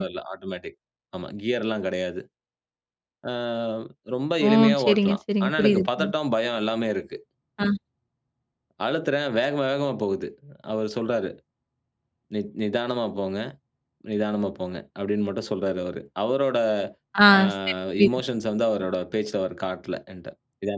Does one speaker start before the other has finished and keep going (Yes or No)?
Yes